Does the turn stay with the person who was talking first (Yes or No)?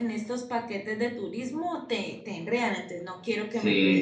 No